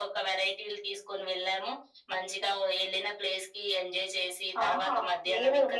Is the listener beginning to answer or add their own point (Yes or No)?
Yes